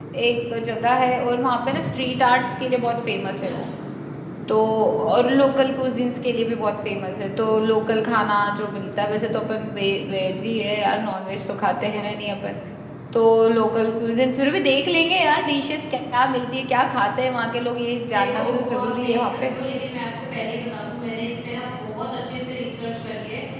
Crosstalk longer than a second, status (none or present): present